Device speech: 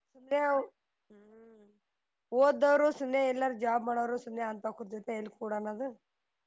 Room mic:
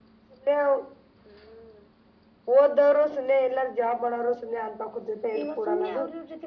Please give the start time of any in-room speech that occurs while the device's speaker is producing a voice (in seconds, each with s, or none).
5.4 s